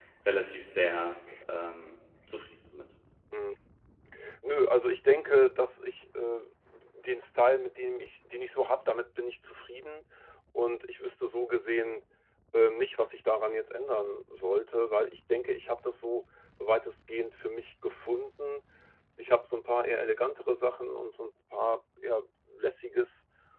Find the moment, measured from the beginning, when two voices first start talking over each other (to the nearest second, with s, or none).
none